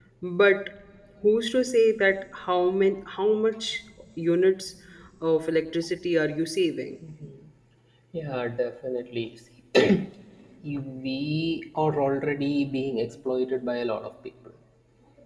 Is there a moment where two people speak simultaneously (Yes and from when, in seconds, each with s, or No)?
No